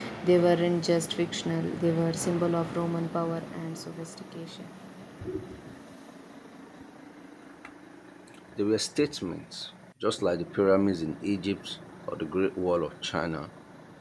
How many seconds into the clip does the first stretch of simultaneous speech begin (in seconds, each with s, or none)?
none